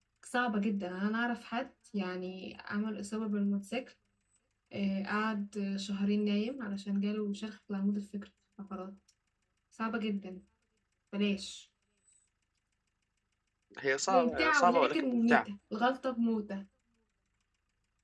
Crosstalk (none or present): present